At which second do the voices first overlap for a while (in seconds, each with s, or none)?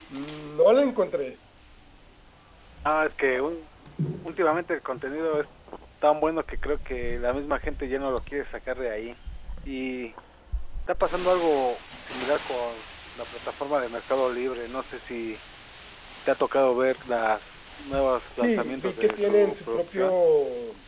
18.4 s